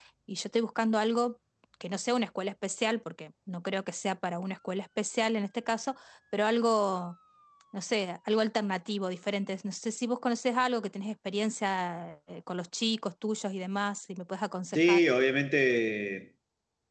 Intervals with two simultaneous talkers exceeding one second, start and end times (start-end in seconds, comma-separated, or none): none